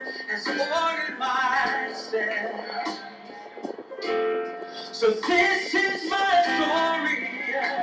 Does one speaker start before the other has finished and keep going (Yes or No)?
No